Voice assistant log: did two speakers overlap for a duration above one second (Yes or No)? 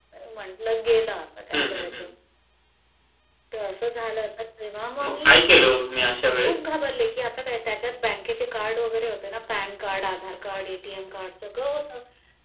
No